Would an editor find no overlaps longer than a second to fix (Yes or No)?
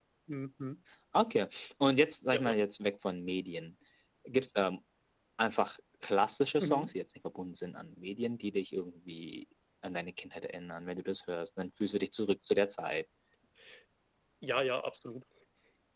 Yes